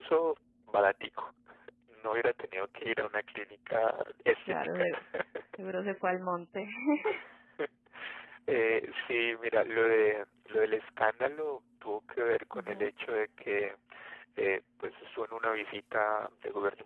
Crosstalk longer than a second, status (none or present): none